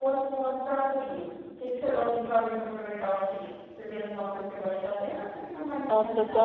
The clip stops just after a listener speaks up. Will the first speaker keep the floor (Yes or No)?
No